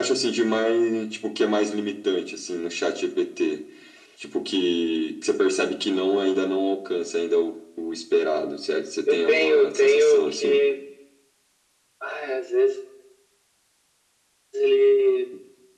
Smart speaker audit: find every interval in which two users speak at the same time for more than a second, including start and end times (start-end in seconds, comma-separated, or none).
9.1-10.6